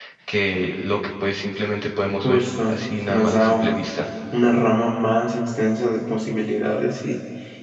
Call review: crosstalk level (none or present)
present